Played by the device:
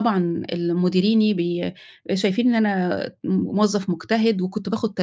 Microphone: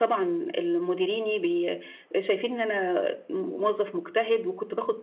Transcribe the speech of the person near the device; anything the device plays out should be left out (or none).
none